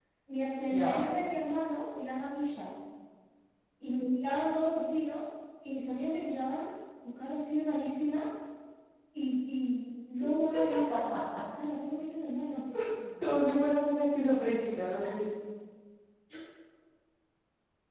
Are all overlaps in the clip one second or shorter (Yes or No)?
Yes